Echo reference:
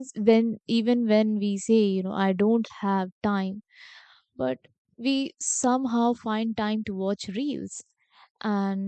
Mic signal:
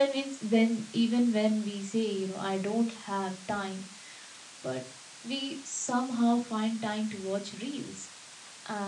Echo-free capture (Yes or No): No